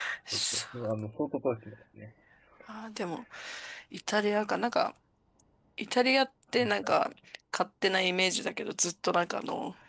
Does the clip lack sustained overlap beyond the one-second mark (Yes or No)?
Yes